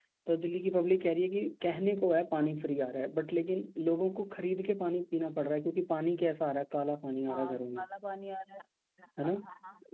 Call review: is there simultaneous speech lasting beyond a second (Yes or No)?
No